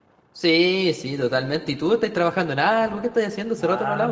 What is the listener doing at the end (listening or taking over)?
taking over